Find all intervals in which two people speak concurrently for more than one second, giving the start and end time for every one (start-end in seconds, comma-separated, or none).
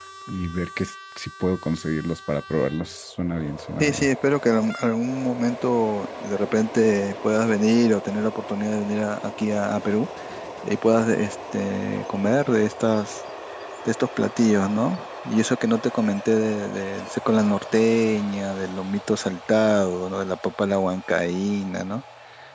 none